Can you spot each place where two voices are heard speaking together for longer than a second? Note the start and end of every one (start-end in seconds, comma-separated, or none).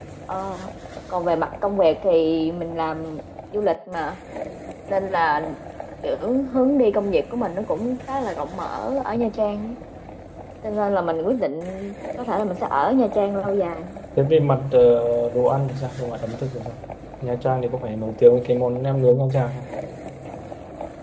none